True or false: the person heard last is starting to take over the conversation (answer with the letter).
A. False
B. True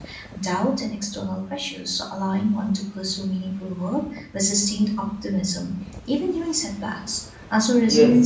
B